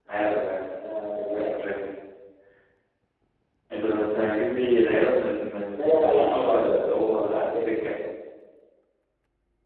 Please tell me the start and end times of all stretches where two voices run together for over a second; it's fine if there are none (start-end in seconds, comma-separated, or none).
5.8-7.7